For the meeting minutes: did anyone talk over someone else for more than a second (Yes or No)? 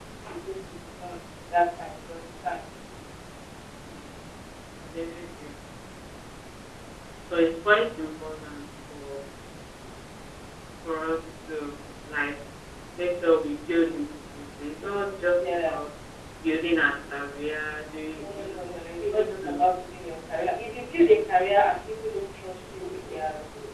Yes